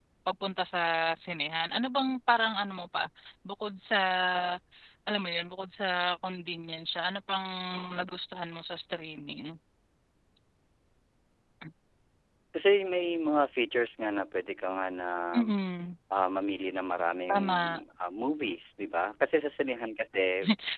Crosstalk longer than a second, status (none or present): none